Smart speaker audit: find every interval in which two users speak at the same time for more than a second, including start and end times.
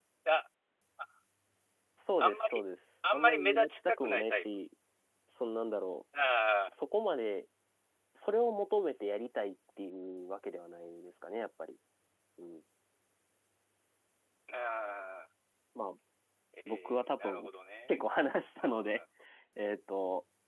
3.1-4.4

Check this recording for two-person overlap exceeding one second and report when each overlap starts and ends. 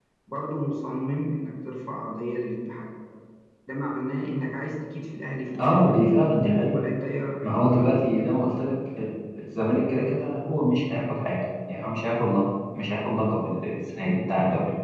none

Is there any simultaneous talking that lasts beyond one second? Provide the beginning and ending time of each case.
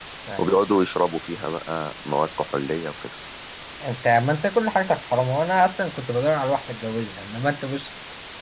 none

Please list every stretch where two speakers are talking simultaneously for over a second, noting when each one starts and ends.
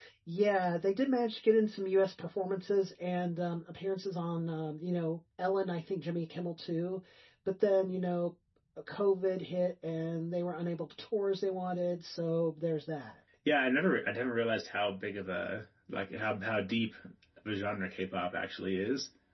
none

